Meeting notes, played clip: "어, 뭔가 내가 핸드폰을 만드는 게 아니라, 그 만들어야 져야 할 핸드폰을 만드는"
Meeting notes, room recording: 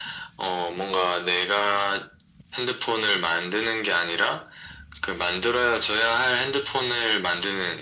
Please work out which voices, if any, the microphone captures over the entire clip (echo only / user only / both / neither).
echo only